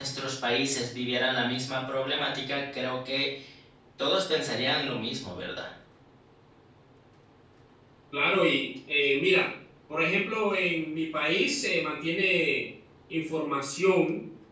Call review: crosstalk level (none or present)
none